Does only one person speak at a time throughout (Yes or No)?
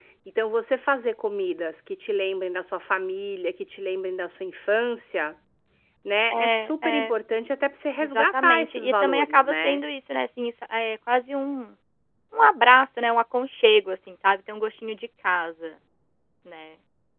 No